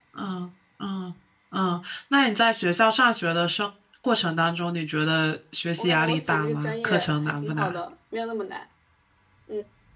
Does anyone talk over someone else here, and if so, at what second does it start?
5.8 s

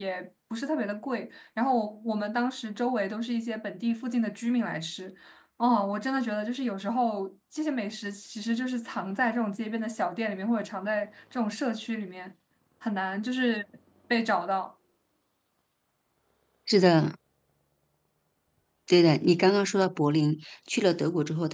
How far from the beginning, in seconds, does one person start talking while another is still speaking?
none

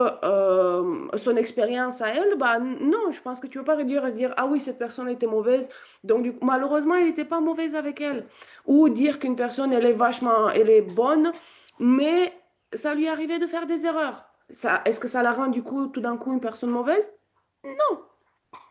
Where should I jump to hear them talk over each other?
none

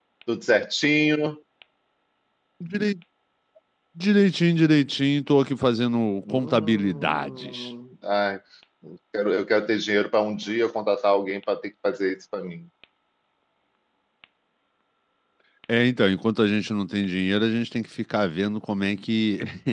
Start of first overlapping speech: 6.2 s

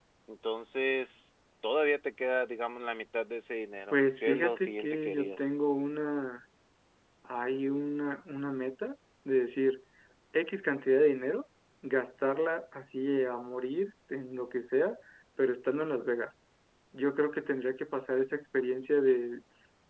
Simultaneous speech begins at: 3.9 s

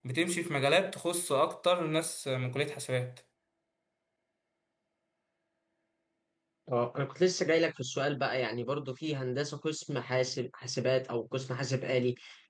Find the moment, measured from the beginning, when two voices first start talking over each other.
none

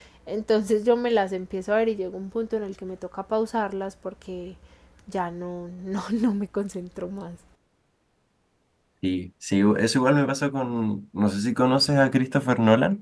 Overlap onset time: none

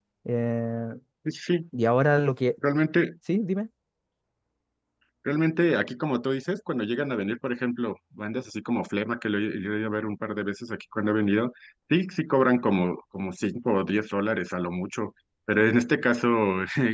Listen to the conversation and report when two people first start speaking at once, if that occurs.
none

